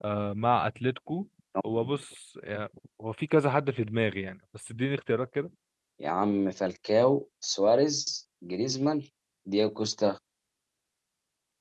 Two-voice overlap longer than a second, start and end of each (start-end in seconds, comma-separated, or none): none